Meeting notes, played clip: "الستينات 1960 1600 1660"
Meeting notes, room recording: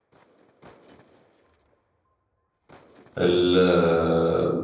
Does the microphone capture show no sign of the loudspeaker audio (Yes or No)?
Yes